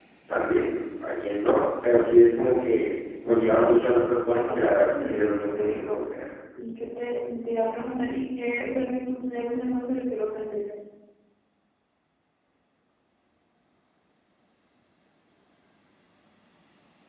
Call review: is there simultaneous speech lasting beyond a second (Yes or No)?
Yes